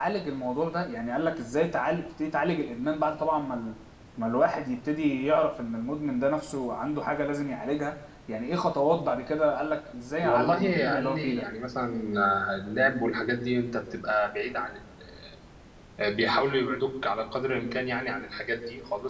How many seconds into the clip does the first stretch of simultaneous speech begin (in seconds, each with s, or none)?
10.2 s